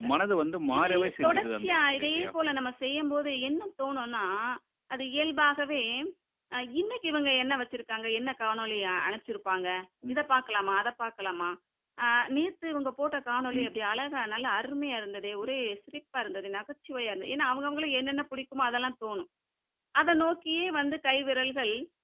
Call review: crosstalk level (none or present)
present